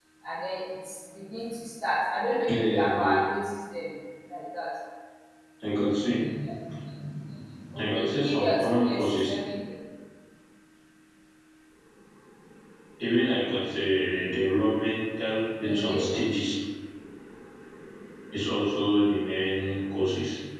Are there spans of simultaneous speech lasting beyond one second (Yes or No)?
Yes